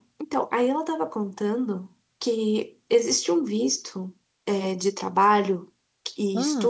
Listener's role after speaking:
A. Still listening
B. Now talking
A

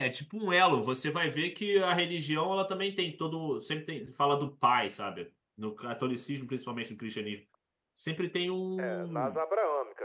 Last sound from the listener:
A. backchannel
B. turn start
B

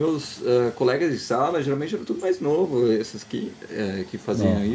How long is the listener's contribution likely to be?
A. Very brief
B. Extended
A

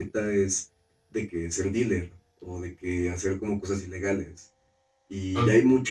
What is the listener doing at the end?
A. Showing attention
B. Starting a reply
A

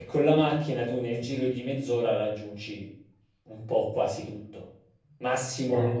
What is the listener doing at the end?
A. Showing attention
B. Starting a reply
A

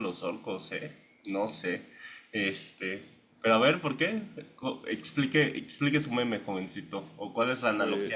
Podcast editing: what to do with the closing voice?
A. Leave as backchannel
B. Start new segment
A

